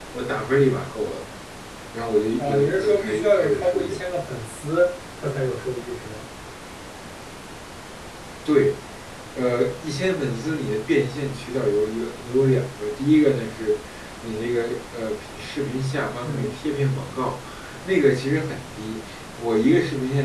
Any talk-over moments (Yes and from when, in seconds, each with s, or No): Yes, from 2.4 s